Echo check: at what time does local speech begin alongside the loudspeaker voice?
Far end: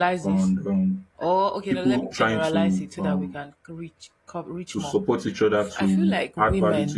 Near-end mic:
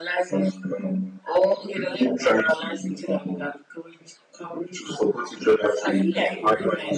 6 s

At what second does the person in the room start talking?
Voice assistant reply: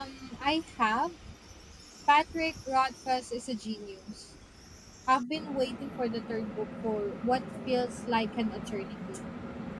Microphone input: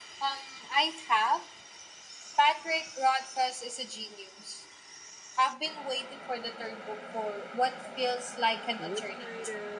9 s

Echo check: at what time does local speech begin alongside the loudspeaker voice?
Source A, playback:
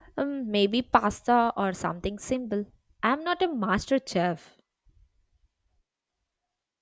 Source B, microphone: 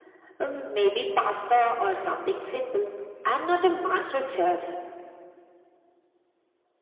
none

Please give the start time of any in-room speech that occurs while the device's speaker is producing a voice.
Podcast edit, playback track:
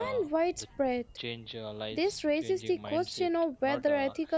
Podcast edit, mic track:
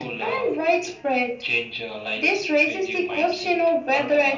none

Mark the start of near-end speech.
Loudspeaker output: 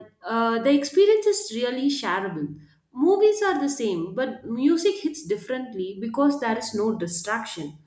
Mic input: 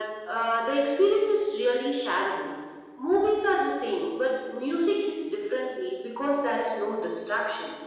none

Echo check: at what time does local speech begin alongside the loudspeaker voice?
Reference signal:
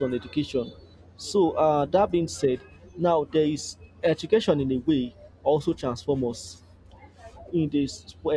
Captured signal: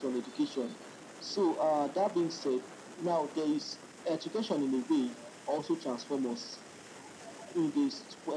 none

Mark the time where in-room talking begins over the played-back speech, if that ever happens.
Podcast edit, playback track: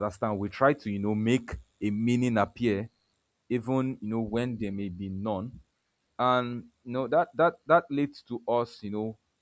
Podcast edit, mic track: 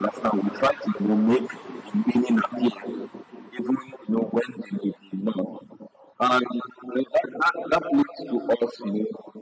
none

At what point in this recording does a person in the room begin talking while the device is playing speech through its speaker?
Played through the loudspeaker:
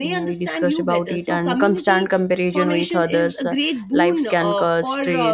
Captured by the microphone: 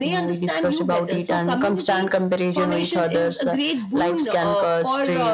none

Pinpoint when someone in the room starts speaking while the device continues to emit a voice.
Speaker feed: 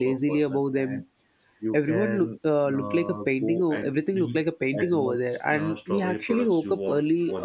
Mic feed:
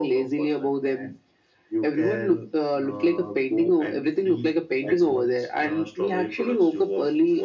none

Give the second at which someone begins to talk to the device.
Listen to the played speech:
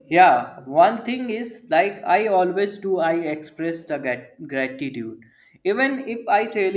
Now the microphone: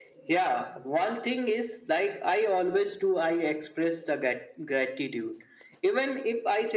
none

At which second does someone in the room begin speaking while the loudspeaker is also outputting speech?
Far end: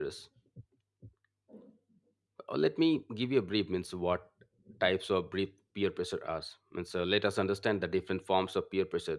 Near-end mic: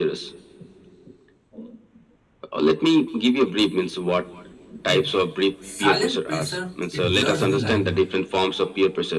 5 s

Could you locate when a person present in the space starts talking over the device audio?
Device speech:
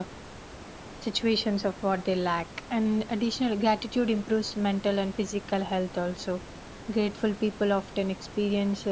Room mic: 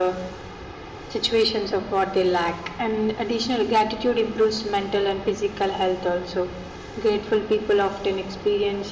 none

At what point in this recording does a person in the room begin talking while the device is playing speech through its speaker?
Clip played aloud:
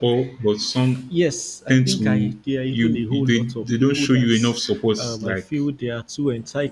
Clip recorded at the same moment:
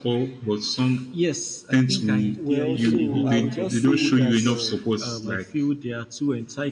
2 s

